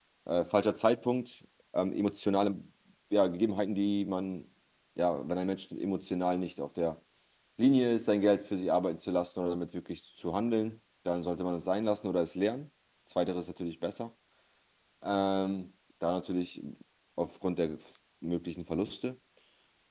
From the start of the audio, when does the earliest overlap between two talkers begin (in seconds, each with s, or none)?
none